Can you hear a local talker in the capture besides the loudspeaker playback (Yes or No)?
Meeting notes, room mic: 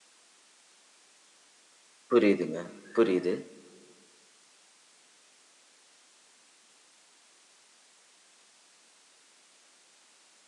Yes